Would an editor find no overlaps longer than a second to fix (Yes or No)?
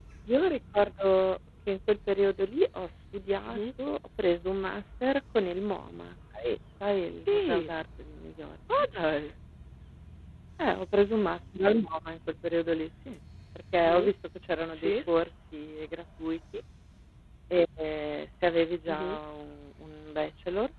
Yes